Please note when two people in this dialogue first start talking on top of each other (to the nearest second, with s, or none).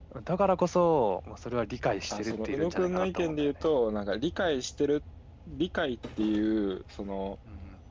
2 s